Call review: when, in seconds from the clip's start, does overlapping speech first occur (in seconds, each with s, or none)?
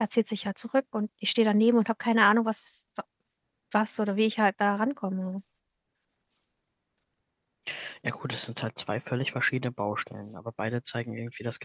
none